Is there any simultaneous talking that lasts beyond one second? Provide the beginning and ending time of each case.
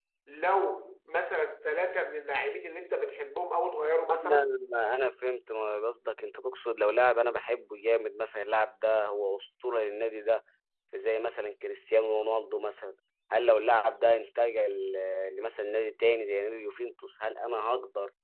none

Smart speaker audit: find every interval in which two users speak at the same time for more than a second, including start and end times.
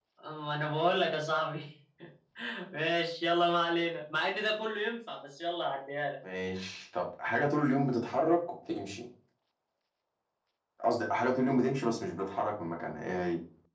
none

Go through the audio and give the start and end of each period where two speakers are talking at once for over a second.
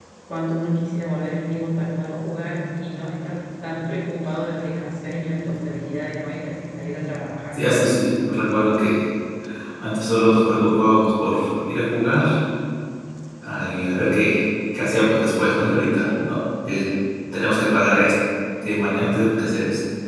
none

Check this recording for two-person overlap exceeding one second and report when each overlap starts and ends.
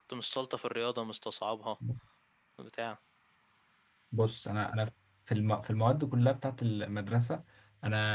none

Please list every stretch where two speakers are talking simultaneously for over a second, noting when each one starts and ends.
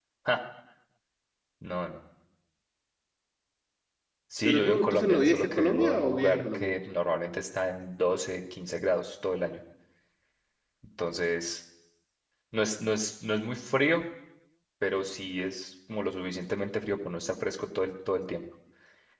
4.4-6.7

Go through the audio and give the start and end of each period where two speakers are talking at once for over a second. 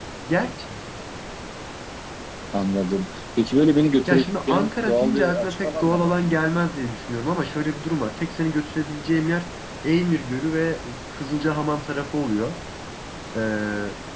4.1-6.4

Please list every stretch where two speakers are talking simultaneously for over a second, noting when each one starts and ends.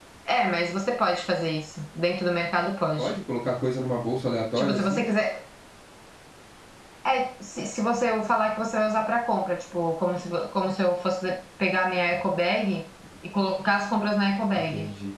none

